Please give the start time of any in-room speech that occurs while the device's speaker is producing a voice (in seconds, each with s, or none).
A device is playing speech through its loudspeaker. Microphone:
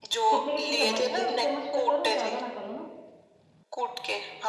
0.3 s